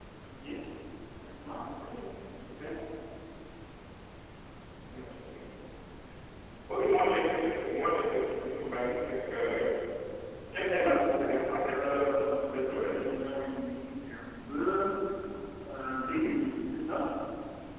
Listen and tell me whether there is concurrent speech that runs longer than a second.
Yes, from 10.5 s

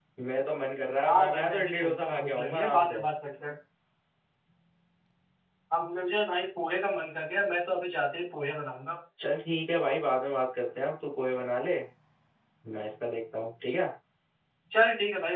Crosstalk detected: Yes, from 1.1 s

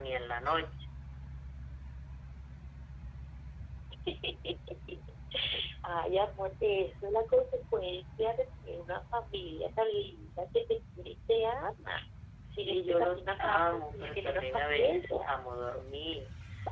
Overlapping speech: Yes, from 12.6 s

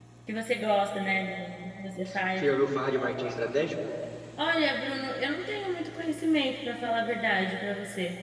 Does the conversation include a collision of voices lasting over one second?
No

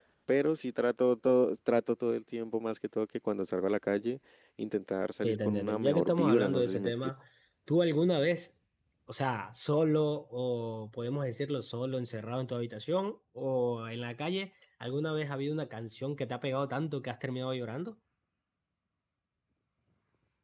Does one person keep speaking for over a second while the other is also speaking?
Yes, from 5.2 s

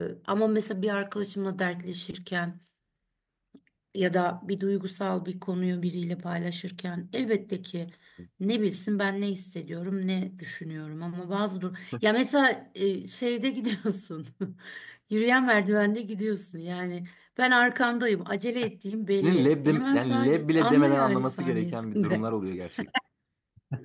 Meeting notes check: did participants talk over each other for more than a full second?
Yes, from 19.2 s

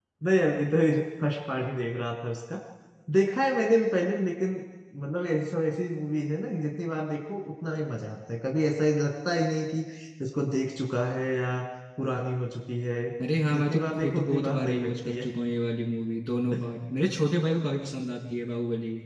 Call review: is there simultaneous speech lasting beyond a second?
Yes, from 13.5 s

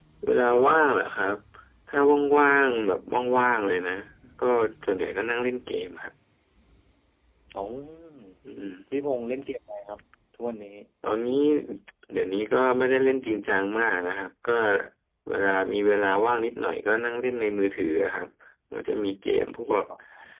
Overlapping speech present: No

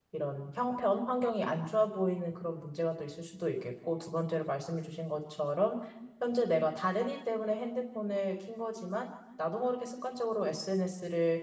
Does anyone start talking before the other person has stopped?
No

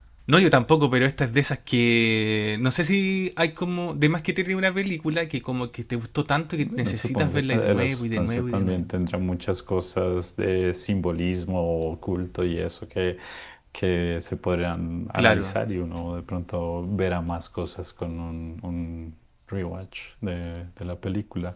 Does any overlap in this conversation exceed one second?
Yes, from 6.6 s

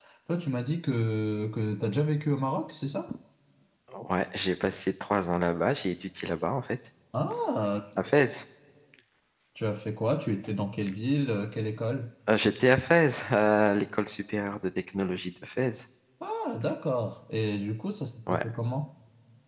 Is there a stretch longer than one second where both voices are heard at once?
No

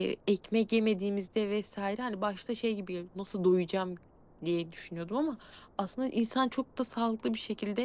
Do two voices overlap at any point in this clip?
No

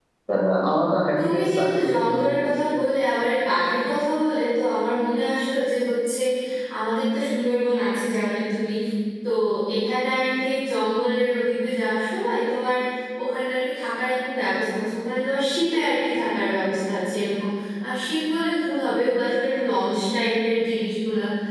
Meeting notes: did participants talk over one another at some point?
Yes, from 1.2 s

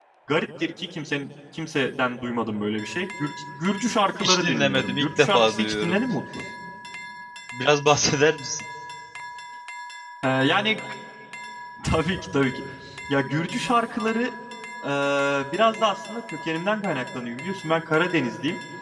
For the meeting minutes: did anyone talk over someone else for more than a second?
Yes, from 4.2 s

